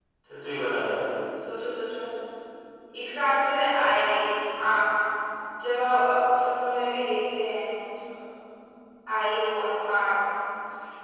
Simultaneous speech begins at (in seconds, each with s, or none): none